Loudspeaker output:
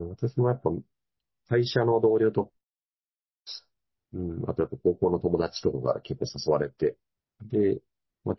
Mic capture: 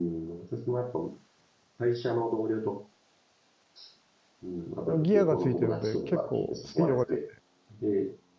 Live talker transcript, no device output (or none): あの、ギアがついてるので、結構スピードが出て、